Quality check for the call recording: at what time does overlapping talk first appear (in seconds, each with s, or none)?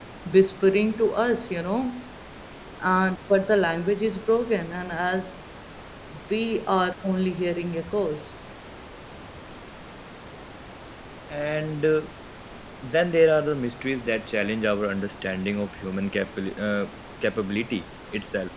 none